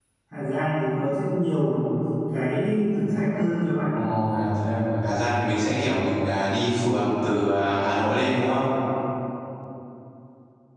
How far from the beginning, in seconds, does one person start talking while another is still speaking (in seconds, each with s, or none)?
none